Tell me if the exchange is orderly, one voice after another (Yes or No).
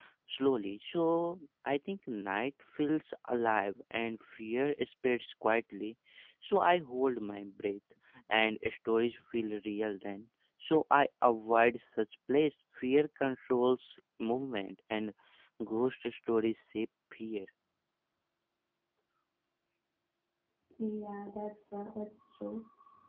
Yes